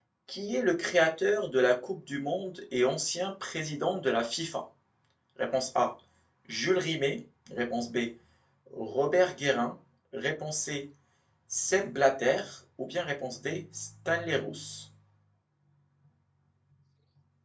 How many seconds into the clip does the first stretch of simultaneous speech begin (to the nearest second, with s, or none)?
none